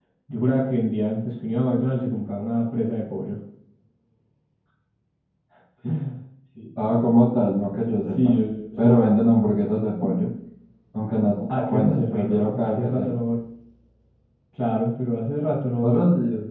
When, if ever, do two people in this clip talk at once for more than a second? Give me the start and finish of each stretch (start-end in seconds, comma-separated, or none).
11.5-13.1